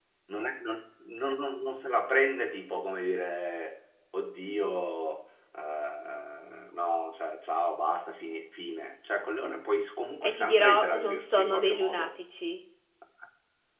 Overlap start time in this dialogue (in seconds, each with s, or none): 10.2 s